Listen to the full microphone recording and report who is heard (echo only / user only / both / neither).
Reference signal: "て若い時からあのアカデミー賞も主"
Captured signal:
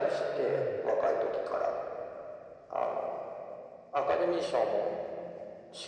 both